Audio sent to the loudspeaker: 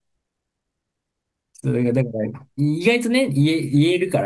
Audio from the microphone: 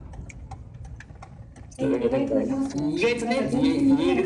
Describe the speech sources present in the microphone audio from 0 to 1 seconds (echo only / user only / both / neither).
neither